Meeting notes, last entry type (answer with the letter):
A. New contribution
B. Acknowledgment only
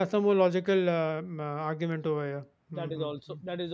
A